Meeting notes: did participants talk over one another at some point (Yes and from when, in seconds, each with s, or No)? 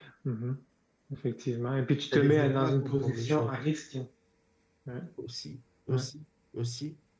Yes, from 2.1 s